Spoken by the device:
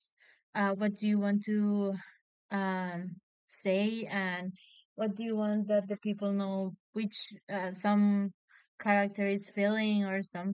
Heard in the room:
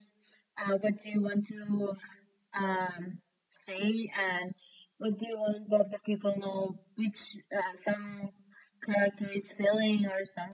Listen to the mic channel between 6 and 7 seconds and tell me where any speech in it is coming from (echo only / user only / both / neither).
echo only